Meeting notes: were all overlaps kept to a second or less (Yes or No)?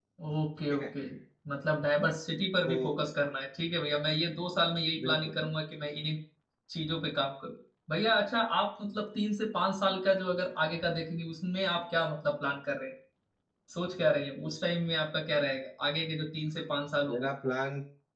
Yes